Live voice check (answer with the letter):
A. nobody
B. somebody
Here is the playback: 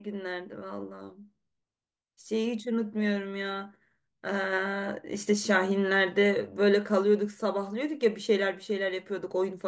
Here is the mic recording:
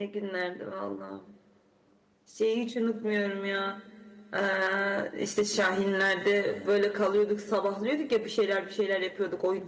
A